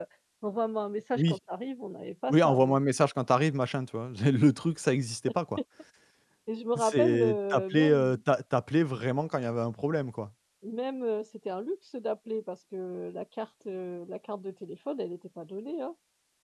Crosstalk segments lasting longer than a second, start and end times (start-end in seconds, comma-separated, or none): 6.8-8.2